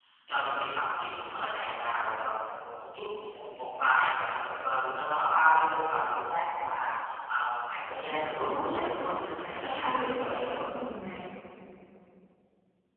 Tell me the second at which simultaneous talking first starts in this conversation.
8.1 s

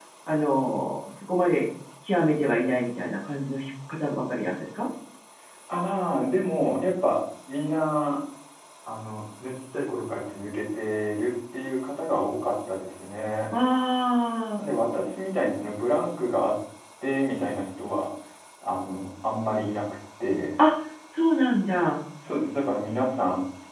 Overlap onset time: none

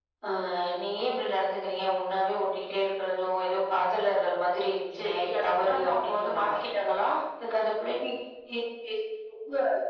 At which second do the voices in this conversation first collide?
5.0 s

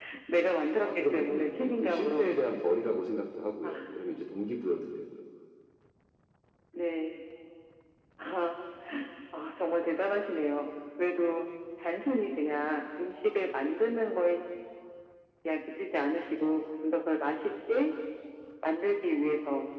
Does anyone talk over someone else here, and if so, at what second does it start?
0.8 s

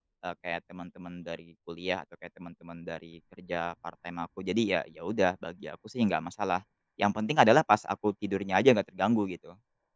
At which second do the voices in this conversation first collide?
none

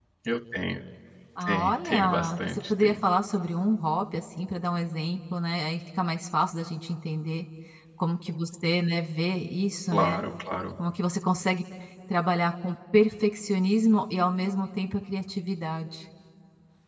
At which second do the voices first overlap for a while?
1.4 s

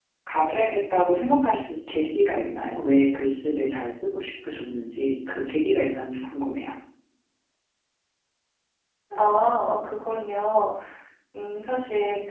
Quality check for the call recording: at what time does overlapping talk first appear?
none

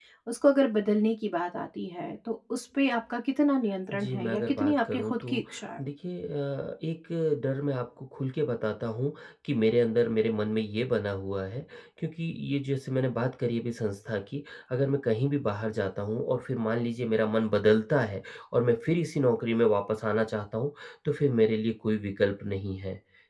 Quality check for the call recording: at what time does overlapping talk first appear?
3.9 s

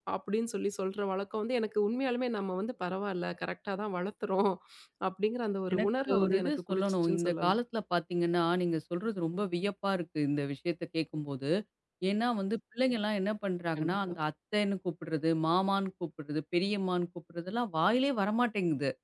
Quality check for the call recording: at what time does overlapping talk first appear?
5.7 s

